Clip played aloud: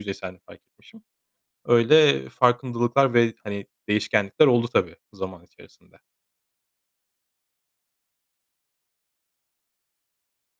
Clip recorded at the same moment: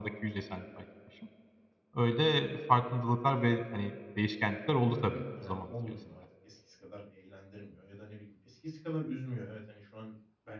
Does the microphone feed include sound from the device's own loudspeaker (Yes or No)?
Yes